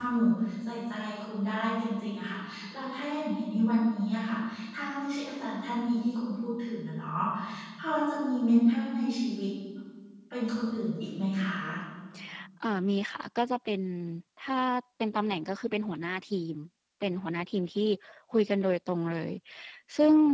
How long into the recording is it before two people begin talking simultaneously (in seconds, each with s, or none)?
none